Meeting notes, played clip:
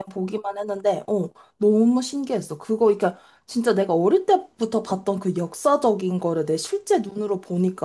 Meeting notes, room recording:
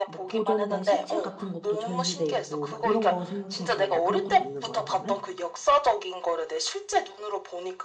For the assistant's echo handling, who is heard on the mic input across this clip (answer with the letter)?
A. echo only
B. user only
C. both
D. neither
C